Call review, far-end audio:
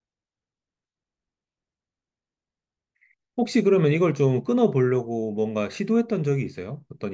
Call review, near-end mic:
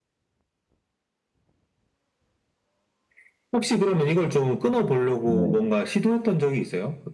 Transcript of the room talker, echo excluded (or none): 뭐,